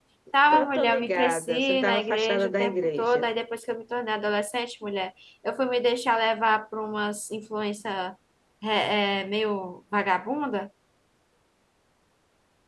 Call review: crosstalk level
present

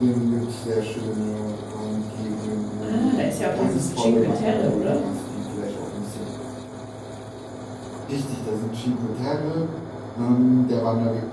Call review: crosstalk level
present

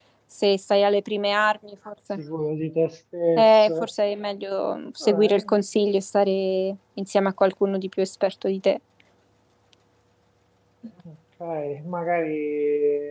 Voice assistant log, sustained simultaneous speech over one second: none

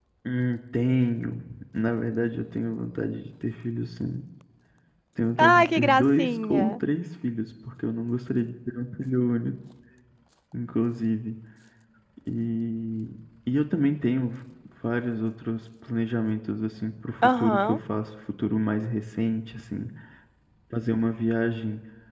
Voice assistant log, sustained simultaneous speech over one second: present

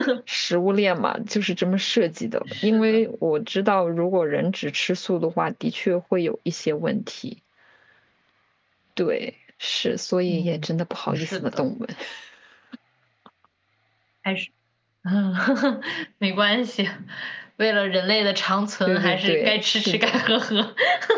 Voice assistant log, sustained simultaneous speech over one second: present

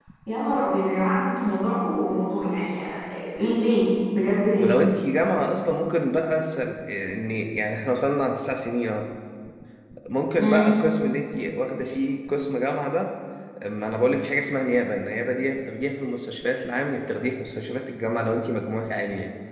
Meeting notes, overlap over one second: none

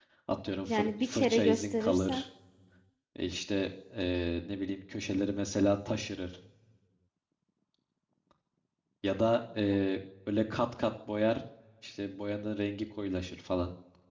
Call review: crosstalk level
present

